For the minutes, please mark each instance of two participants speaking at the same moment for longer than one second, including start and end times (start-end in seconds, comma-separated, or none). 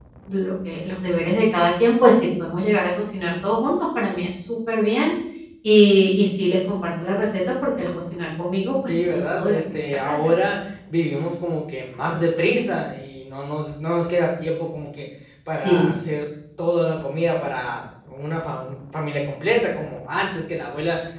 8.9-10.3